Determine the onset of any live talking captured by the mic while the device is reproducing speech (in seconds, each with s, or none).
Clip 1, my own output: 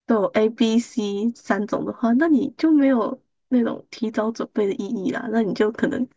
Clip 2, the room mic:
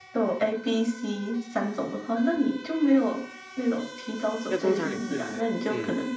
4.4 s